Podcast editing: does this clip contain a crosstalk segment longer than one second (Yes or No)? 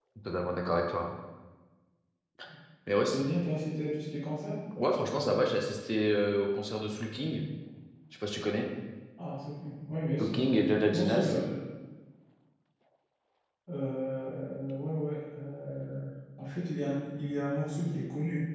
No